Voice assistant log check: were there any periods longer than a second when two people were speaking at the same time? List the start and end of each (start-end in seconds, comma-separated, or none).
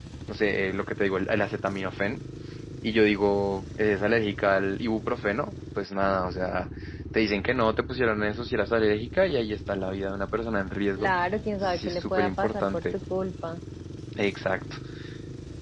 11.6-12.8